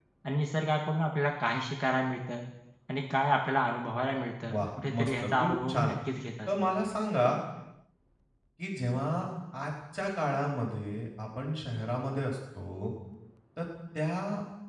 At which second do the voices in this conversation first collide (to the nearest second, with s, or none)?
5 s